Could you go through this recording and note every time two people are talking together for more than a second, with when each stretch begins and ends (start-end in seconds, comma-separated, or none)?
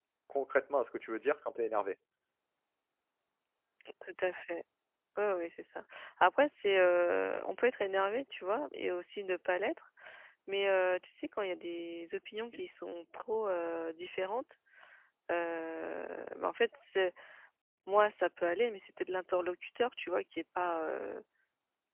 none